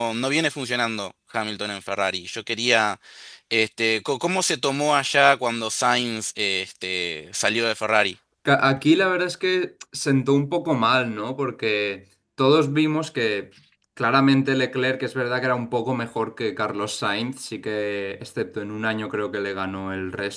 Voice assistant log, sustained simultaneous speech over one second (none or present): none